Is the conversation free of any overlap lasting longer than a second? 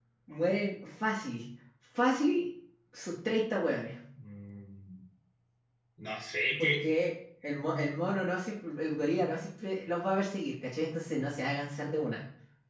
Yes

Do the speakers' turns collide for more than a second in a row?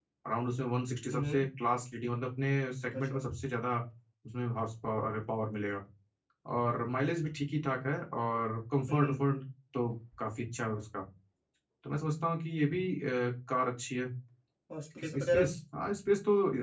No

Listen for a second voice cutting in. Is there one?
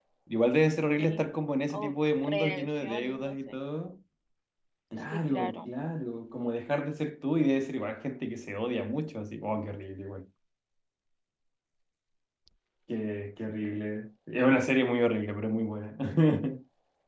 Yes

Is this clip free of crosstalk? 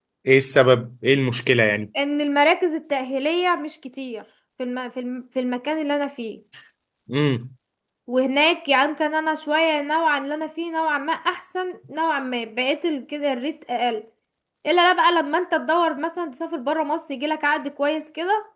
Yes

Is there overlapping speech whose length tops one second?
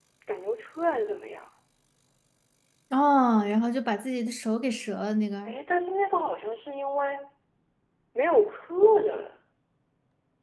No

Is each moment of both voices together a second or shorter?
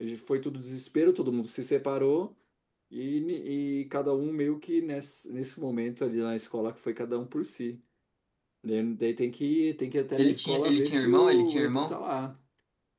No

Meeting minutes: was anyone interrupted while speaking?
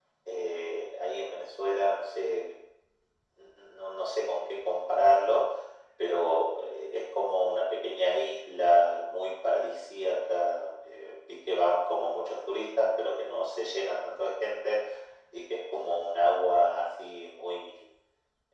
No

